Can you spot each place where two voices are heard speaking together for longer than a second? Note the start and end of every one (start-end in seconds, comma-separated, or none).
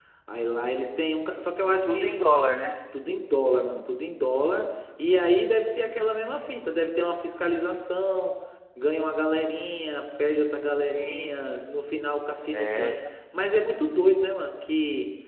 none